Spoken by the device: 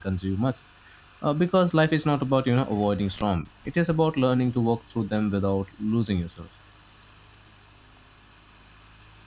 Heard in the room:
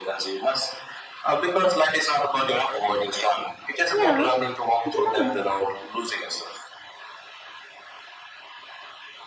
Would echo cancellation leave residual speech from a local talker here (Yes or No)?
Yes